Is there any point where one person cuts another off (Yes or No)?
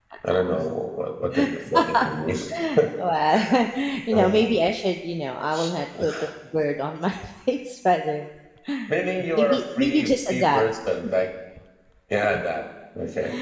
Yes